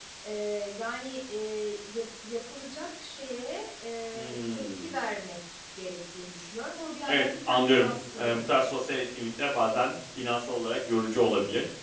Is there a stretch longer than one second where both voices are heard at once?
Yes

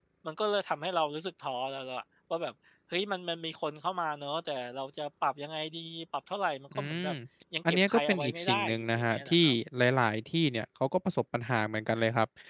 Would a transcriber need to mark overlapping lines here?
Yes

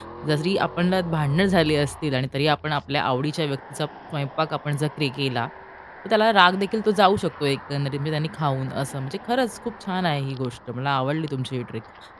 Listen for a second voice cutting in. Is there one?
No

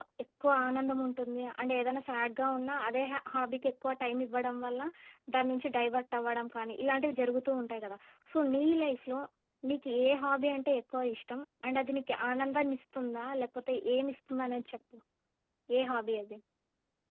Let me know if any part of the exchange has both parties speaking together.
No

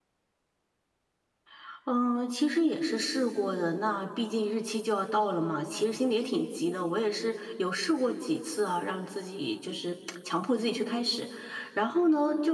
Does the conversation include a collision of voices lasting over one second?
No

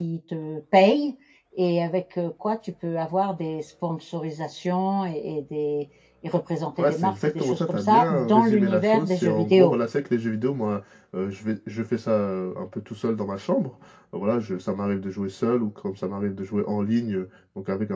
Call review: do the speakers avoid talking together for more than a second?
No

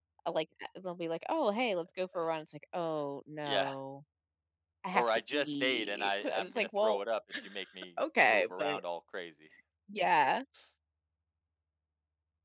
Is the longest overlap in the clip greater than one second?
Yes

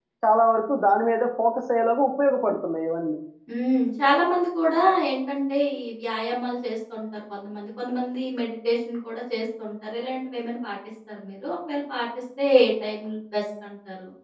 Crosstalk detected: No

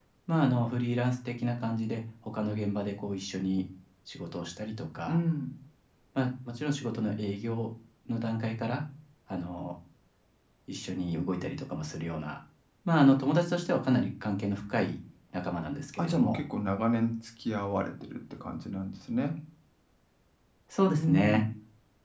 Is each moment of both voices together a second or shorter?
Yes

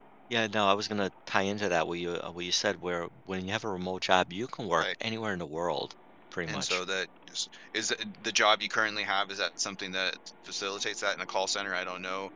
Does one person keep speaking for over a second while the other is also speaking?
No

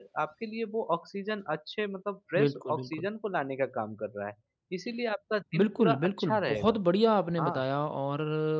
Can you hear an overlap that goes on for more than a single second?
Yes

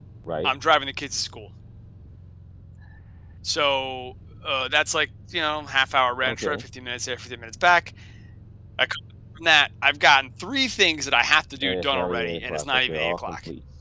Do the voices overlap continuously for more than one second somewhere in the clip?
Yes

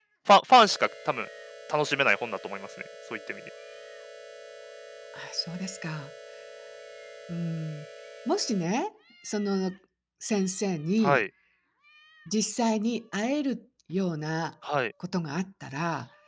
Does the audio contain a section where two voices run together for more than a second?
No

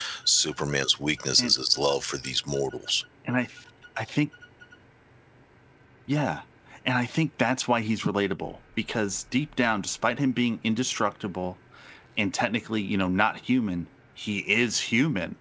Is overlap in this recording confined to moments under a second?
Yes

